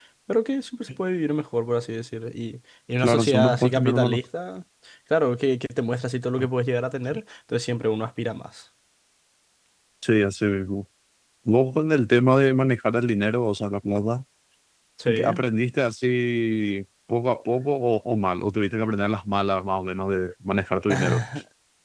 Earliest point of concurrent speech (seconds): 3.0 s

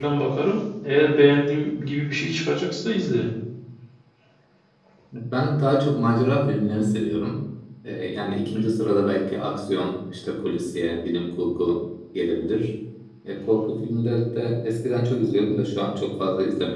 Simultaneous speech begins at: none

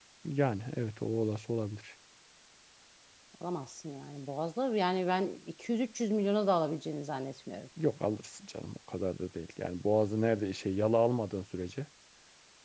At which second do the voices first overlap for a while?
none

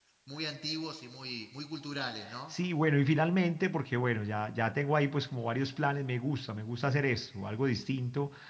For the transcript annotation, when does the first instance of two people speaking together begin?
none

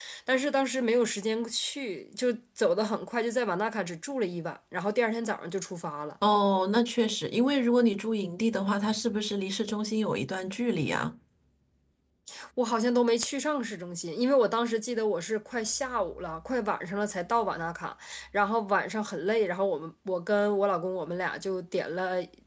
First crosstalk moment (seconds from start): none

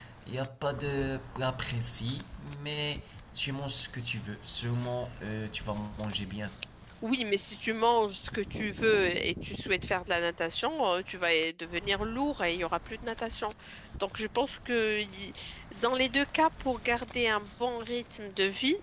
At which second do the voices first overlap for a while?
none

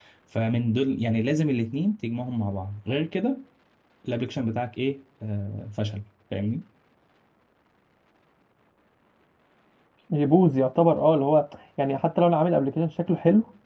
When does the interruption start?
none

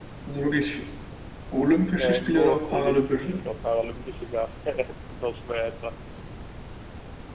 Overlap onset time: 2.0 s

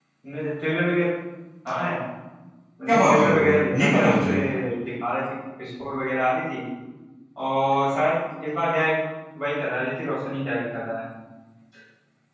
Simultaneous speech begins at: 2.9 s

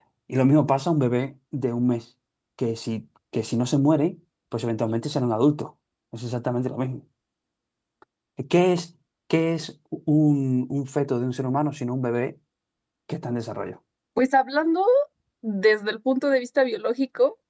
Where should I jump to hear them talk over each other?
none

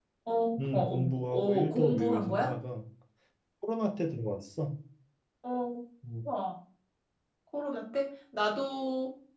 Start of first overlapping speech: 0.7 s

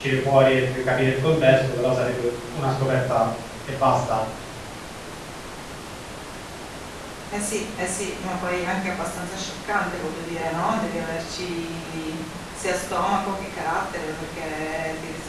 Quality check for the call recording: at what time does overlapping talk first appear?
none

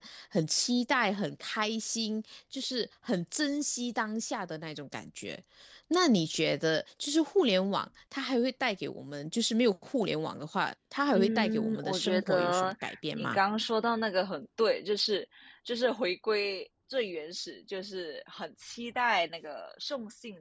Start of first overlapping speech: 11.1 s

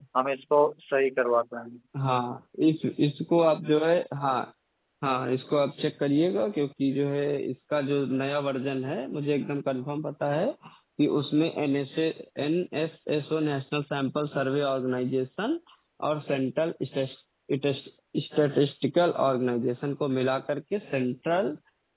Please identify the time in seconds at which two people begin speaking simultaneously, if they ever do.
none

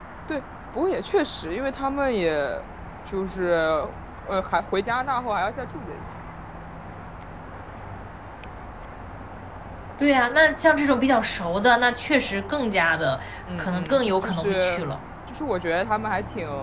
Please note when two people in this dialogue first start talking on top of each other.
13.5 s

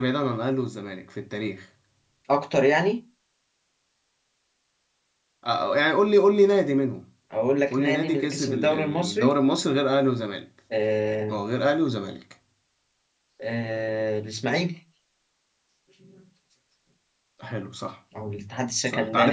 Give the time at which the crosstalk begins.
7.7 s

